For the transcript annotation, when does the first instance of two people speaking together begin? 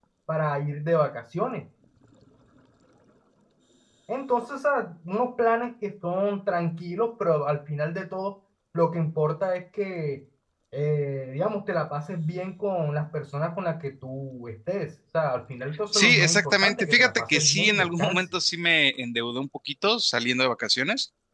16 s

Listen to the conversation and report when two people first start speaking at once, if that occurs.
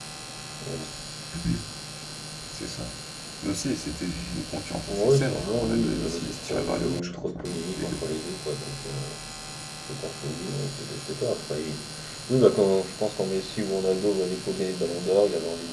5 s

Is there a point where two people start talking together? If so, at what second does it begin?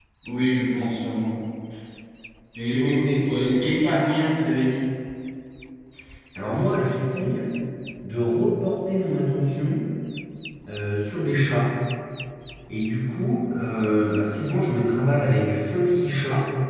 3 s

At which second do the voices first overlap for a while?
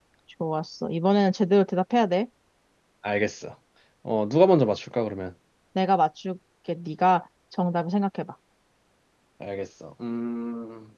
none

